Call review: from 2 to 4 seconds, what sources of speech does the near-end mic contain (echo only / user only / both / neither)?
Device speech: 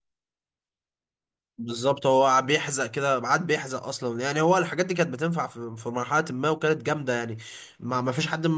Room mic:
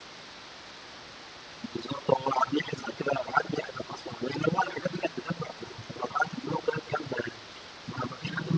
echo only